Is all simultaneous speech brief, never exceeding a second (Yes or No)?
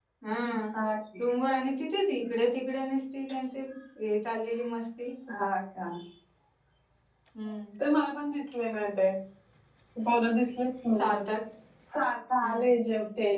Yes